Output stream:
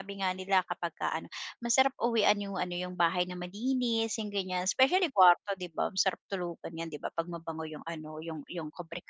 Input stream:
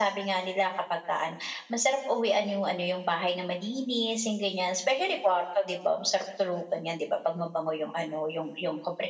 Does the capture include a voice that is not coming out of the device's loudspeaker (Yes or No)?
No